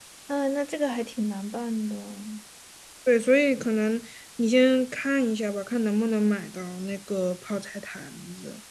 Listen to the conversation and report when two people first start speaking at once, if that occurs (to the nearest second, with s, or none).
none